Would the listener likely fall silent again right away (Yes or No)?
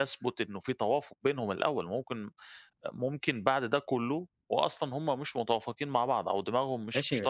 No